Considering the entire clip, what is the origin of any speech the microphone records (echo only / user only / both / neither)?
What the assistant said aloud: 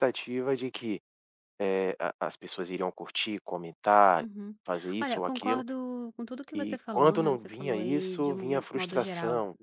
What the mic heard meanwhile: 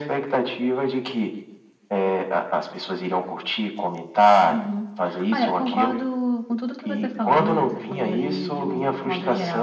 echo only